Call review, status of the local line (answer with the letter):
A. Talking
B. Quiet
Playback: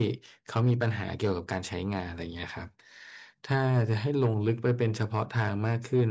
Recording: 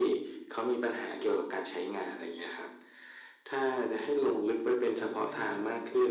A